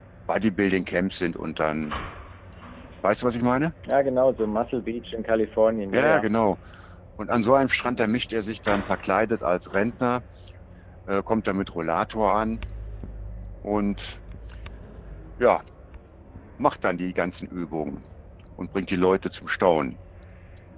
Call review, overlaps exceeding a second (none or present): none